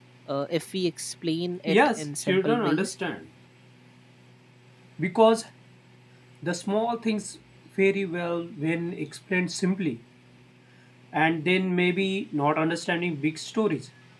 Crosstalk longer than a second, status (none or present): present